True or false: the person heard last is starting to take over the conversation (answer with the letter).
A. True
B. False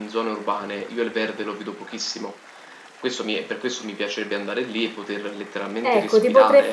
A